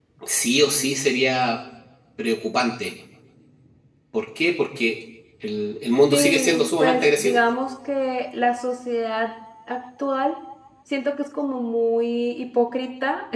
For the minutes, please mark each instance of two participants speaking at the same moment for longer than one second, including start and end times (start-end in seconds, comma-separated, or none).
6.1-7.4